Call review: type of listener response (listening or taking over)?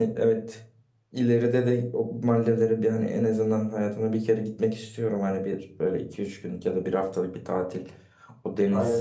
listening